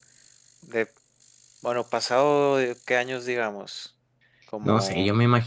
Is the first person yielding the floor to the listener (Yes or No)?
Yes